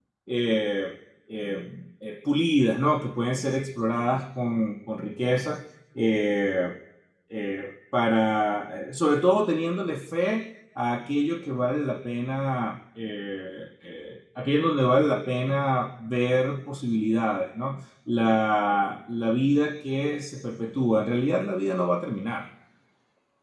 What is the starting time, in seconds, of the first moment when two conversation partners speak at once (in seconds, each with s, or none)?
none